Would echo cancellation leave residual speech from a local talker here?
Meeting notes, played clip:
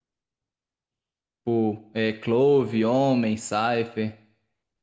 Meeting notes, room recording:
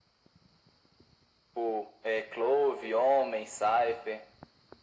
No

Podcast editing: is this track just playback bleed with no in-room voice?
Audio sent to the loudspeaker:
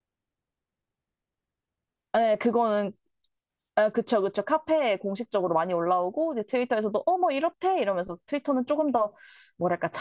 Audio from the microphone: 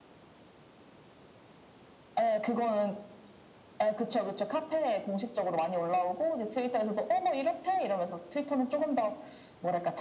Yes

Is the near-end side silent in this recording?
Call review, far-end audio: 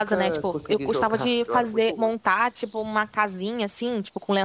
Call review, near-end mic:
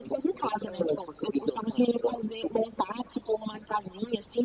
Yes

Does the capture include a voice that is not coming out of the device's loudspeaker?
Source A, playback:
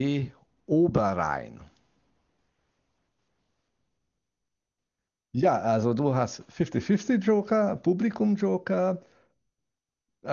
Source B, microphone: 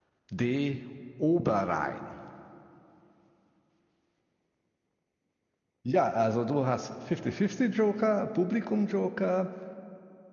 No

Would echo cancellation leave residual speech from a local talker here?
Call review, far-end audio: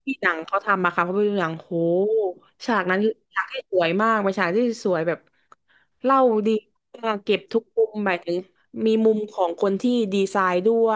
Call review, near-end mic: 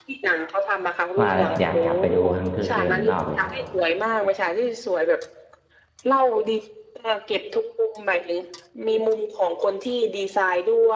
Yes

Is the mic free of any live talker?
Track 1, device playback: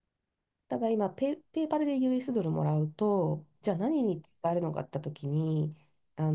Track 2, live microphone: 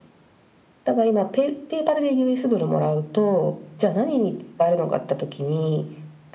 Yes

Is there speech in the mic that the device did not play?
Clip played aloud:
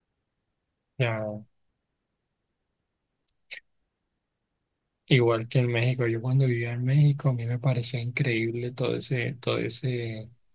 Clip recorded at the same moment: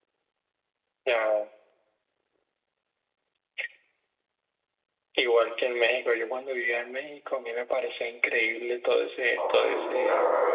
Yes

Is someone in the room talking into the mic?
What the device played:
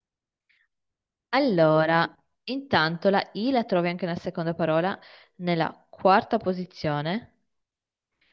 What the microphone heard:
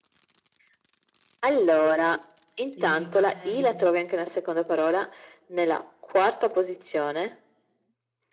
Yes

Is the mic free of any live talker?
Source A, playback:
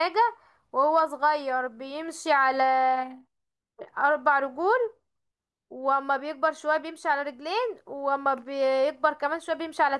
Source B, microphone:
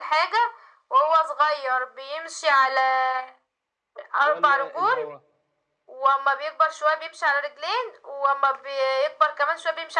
No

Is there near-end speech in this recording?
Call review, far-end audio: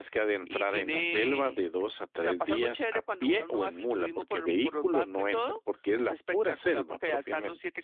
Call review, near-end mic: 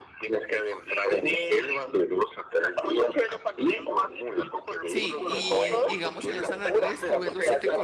Yes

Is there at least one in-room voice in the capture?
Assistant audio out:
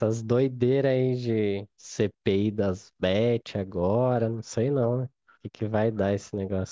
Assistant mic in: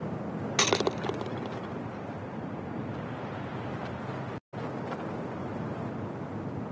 No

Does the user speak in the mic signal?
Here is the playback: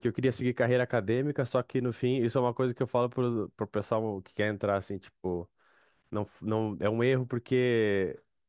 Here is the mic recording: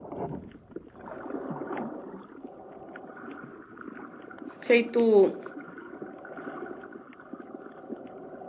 Yes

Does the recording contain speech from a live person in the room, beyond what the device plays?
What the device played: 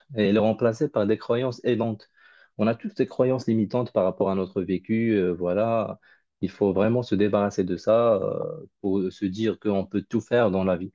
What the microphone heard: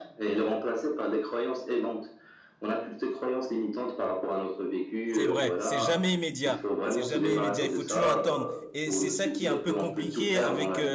Yes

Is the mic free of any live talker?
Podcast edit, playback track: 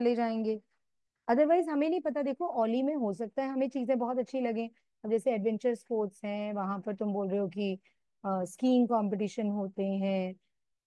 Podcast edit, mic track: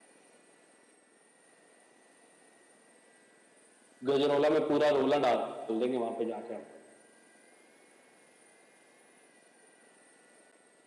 No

